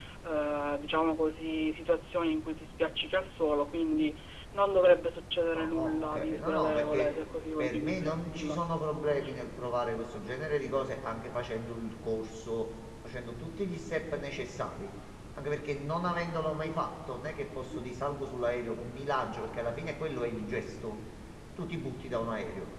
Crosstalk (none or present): present